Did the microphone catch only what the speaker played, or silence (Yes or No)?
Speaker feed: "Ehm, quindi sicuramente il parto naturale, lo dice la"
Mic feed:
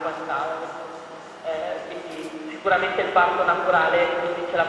Yes